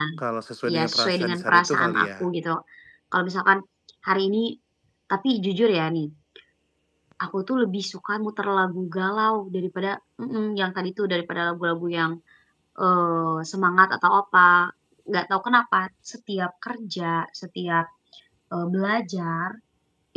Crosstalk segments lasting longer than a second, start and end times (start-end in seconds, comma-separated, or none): 0.7-2.3